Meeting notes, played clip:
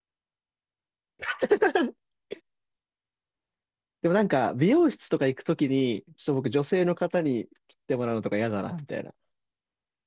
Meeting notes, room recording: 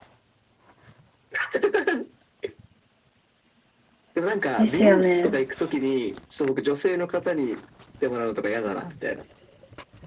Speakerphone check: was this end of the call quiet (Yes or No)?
No